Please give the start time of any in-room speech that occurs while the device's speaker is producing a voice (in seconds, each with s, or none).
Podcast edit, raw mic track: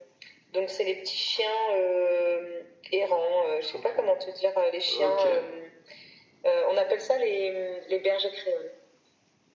3.6 s